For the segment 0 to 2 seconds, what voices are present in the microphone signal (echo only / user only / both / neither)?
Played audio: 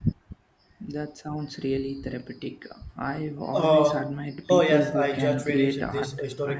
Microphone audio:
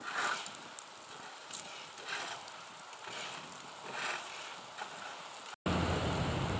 neither